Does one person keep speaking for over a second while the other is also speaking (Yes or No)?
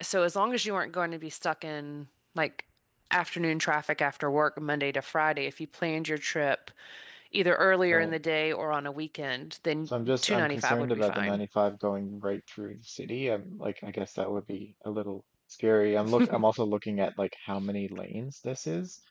Yes